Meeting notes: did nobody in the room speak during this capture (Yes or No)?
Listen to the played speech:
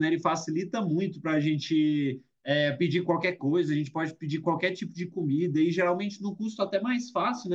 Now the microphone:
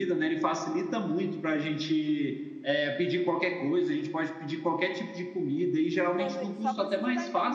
No